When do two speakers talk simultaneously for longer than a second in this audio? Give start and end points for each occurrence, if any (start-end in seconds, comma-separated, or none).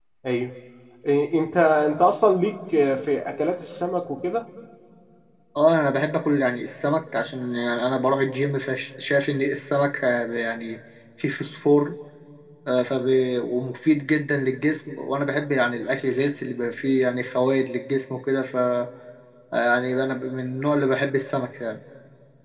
none